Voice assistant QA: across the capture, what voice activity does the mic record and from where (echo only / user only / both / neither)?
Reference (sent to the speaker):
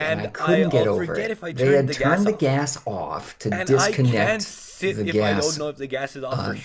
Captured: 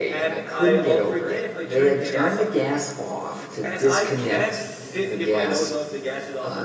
echo only